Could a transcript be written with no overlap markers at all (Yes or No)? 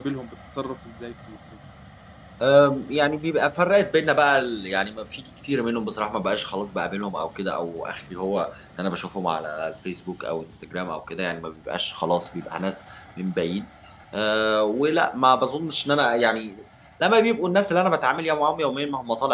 Yes